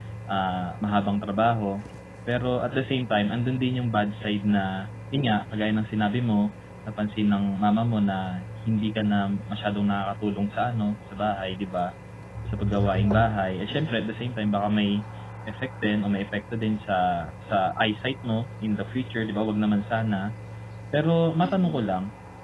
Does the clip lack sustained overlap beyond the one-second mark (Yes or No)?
No